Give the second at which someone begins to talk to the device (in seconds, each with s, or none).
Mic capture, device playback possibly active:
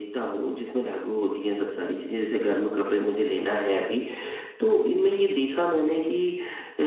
none